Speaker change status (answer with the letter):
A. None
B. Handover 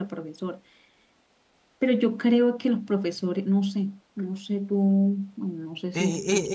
B